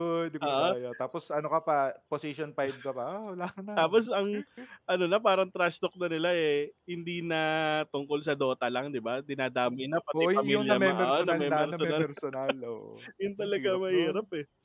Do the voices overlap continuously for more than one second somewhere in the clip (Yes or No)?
Yes